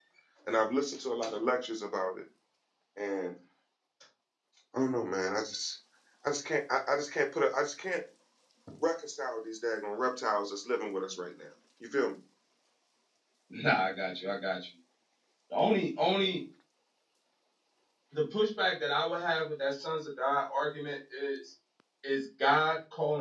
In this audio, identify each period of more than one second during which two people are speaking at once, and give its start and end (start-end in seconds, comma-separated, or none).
none